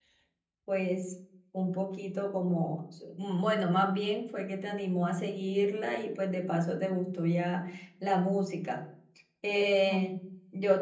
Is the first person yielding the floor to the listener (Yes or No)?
No